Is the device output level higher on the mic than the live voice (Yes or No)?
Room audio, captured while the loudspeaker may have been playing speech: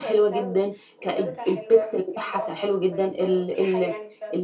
No